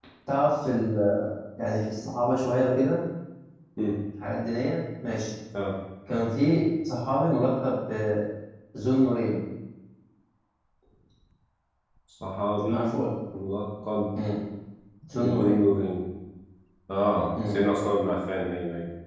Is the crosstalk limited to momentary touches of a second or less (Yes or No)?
Yes